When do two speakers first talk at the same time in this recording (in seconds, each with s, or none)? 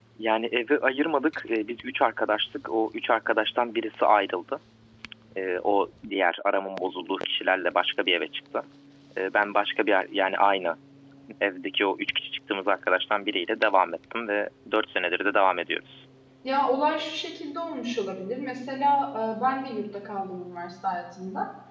none